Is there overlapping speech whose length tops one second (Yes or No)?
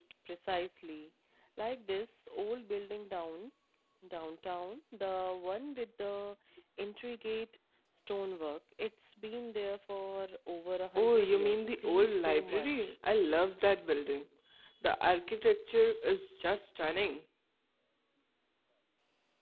Yes